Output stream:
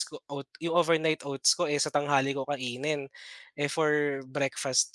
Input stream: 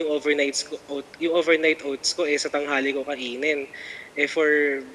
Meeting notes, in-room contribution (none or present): none